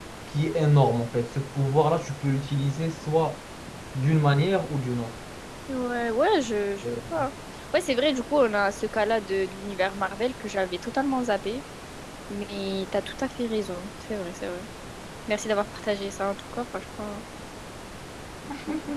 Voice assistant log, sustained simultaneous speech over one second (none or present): none